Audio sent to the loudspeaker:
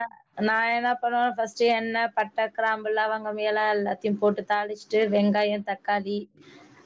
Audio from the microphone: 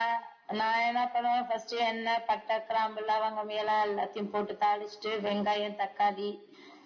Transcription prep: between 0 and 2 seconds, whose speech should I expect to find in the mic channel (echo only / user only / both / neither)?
echo only